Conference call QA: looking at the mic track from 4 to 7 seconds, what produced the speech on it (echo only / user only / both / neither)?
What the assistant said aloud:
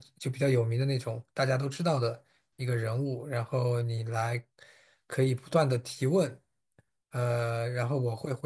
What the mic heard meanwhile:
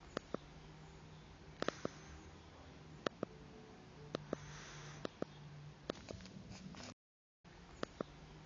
neither